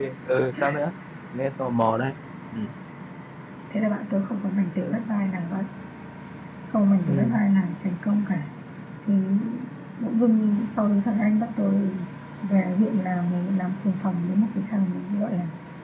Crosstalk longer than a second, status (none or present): none